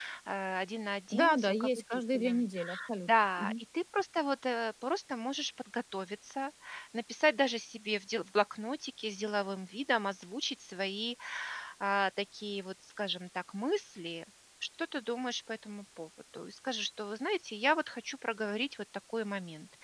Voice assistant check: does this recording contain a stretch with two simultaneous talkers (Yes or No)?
Yes